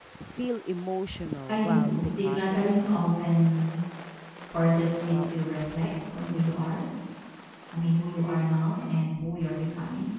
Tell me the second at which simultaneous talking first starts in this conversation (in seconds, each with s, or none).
1.5 s